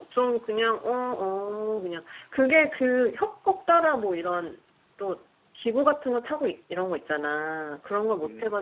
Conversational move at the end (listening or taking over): listening